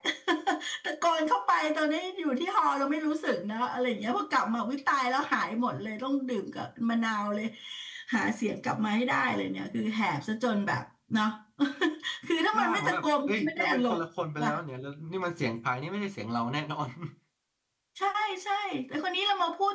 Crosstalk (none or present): present